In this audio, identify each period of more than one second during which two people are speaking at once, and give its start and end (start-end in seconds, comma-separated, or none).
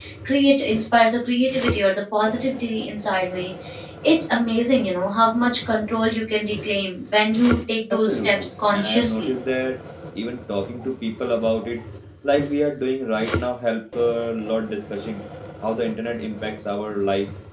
7.9-9.3